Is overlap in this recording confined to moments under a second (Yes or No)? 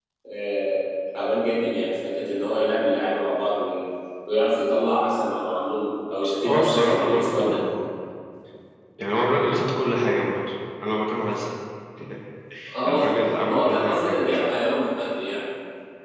No